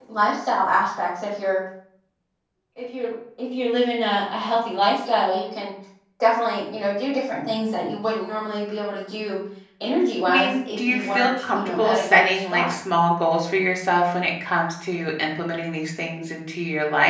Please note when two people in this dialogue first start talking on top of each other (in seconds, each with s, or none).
10.3 s